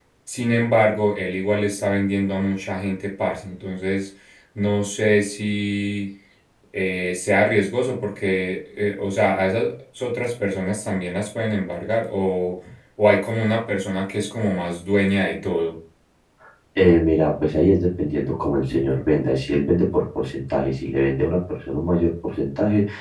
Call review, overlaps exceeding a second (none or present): none